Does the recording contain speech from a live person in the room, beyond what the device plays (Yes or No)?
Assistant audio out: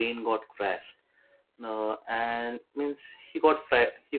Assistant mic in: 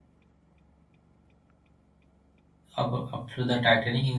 Yes